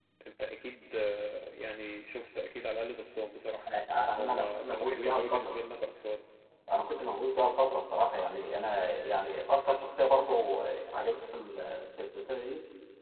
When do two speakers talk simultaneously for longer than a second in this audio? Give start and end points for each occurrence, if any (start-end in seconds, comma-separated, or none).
4.2-5.6